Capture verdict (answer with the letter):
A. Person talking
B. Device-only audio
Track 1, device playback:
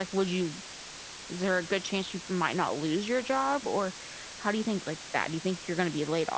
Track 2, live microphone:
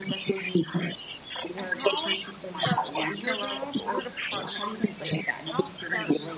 A